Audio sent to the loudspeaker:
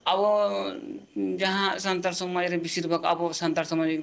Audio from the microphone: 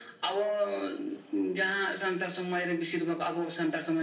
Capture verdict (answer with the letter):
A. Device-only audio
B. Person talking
A